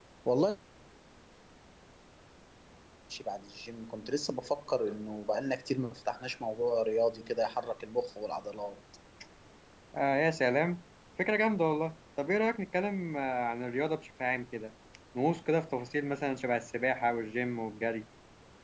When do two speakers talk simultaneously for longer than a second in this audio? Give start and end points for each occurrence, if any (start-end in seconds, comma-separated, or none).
none